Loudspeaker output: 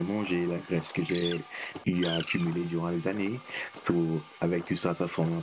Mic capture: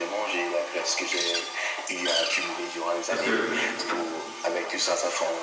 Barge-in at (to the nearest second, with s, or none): 3 s